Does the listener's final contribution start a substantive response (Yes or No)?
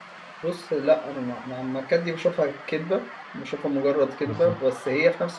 No